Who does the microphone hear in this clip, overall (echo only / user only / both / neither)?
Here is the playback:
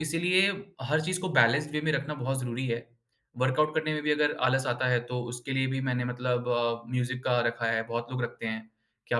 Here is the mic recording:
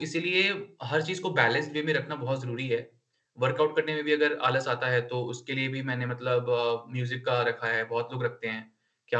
echo only